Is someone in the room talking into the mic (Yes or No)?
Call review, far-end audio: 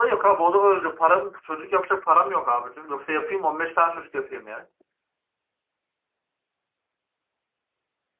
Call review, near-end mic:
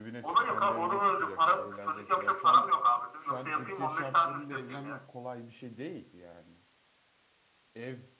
Yes